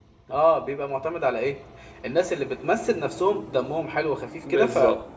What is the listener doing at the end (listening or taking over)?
taking over